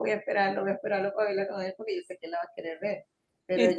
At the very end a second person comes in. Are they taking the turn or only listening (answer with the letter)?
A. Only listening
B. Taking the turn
A